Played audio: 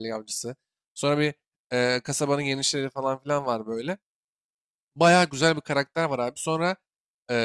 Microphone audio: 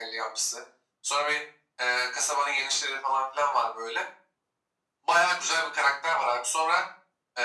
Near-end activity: none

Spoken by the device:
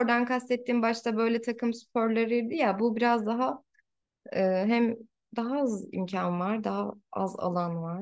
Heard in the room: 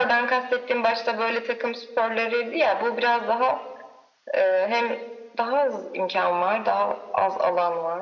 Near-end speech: none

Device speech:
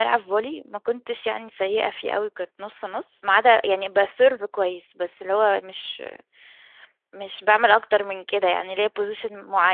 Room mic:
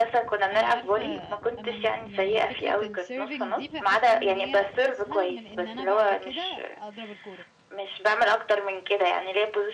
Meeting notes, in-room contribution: present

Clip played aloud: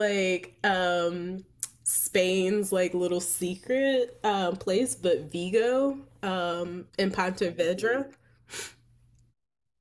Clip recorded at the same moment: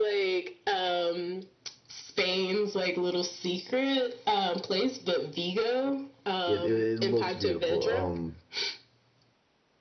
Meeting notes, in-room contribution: present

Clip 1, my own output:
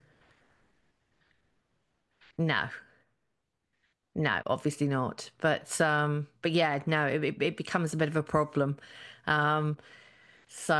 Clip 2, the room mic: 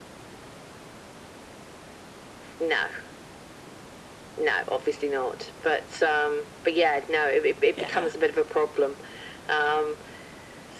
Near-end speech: present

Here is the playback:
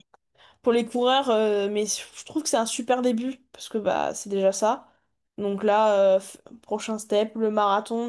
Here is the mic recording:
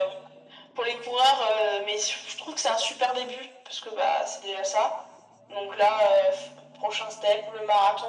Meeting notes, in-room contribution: none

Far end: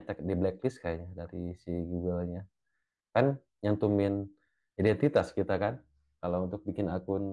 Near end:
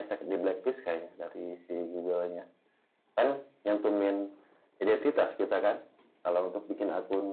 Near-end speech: none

